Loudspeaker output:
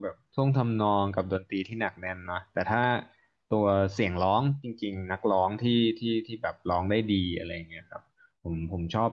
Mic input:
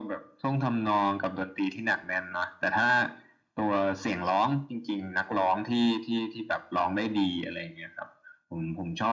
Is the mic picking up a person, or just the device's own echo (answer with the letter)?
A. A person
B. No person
B